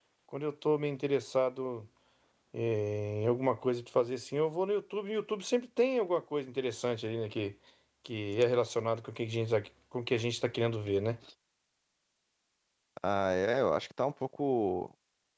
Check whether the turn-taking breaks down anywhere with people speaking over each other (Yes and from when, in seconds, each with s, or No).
No